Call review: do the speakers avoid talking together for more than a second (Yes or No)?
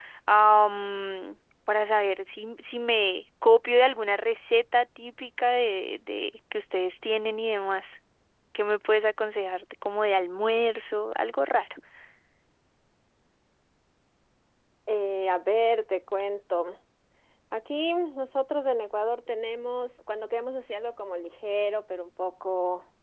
Yes